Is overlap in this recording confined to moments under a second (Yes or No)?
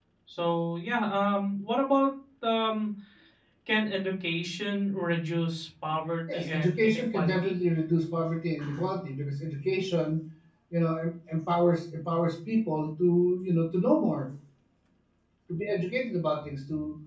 No